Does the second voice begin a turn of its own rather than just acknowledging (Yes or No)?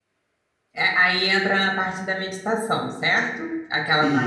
No